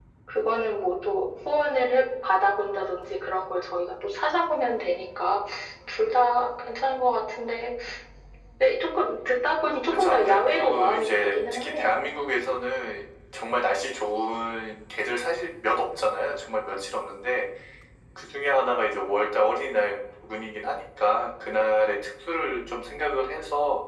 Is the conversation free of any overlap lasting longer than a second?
No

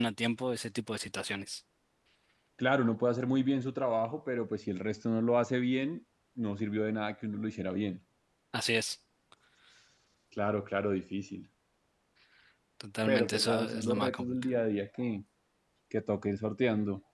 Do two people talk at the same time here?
Yes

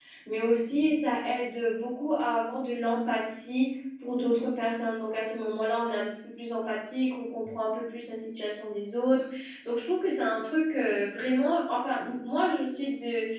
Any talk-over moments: No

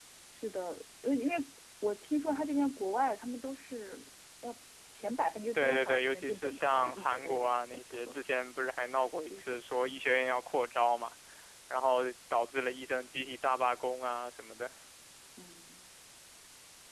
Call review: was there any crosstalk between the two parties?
Yes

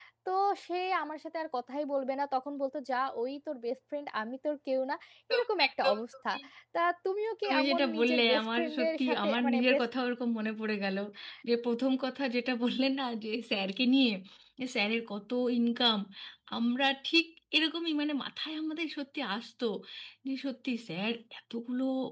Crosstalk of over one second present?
Yes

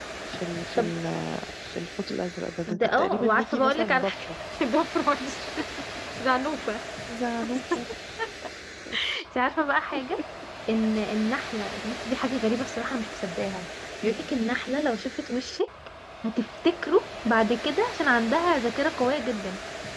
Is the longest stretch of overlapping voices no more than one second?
No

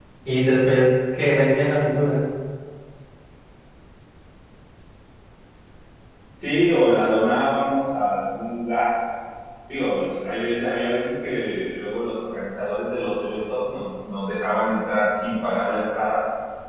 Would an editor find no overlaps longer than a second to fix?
Yes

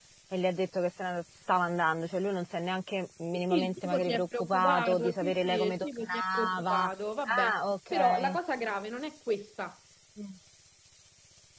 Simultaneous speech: Yes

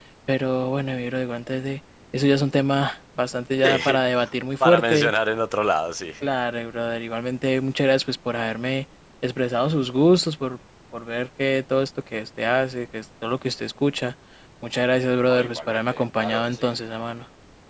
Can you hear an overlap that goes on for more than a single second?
Yes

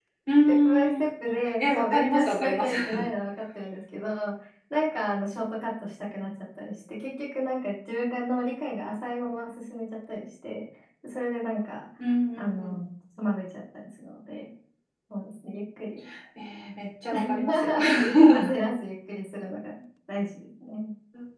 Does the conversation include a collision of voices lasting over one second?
Yes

